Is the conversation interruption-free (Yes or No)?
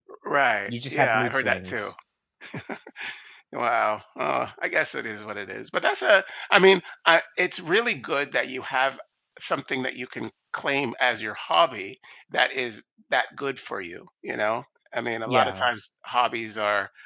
No